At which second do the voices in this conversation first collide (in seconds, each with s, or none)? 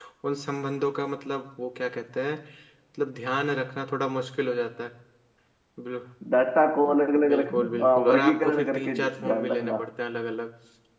7.2 s